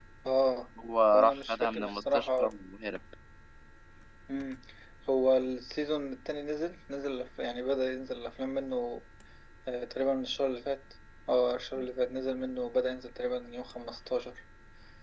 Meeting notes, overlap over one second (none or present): present